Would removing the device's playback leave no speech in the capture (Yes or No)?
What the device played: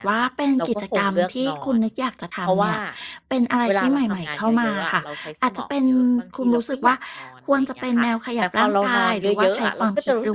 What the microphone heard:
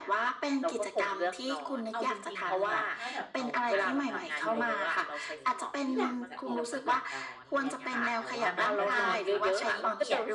No